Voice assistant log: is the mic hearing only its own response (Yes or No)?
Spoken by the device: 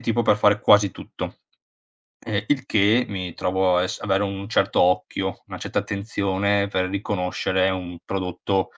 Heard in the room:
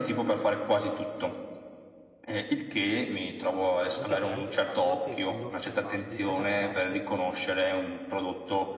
No